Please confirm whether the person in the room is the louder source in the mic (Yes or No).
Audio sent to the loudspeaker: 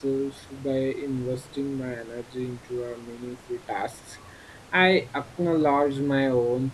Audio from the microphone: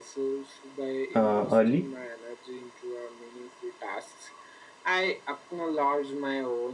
Yes